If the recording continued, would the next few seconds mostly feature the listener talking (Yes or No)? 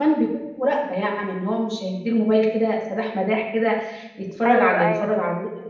No